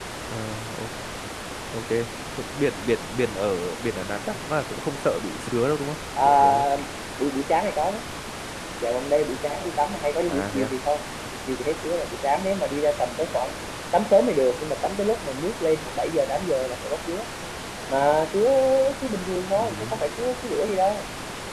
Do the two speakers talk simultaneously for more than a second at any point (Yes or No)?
No